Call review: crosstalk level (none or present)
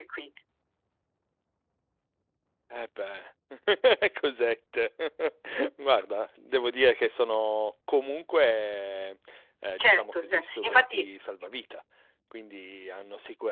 present